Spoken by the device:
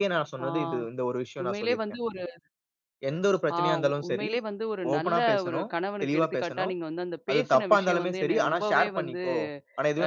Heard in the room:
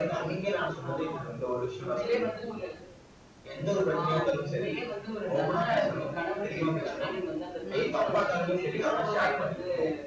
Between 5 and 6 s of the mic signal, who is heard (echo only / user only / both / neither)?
echo only